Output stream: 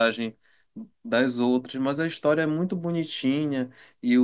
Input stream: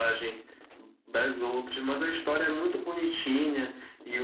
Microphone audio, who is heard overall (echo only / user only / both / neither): echo only